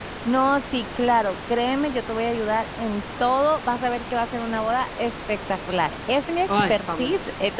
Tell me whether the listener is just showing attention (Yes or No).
Yes